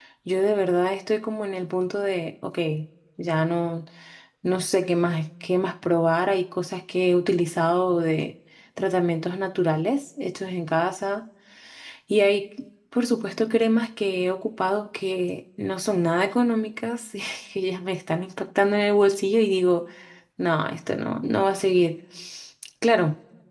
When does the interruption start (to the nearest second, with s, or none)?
none